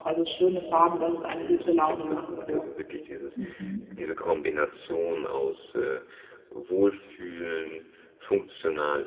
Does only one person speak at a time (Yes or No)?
No